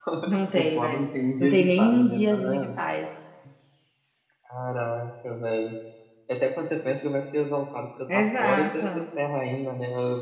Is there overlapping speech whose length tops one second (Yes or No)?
Yes